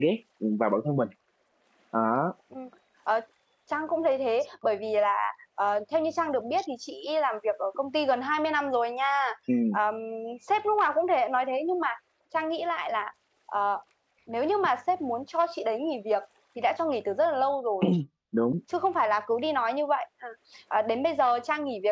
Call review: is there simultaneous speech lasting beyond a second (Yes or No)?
No